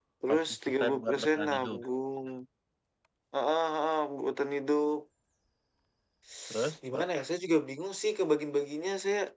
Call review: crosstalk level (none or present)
present